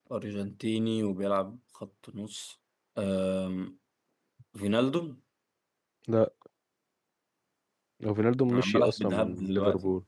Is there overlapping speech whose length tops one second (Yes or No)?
Yes